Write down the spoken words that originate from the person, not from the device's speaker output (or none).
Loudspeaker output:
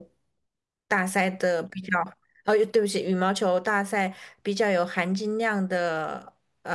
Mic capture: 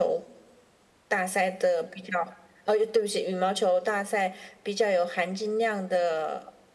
none